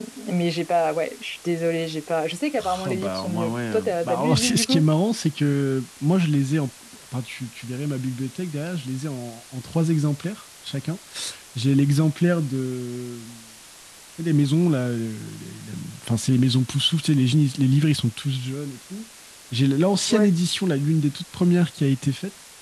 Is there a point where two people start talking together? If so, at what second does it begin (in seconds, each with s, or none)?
2.6 s